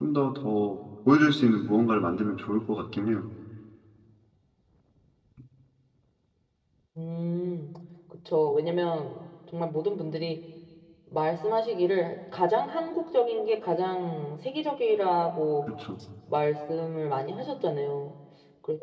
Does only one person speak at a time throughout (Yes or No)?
Yes